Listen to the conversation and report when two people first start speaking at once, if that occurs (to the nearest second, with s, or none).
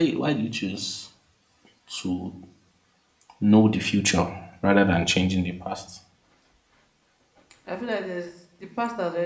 none